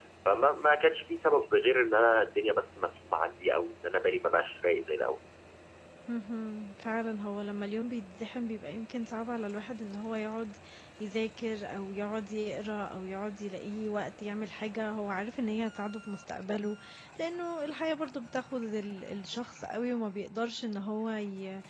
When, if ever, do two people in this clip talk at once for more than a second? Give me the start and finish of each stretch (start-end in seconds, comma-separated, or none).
none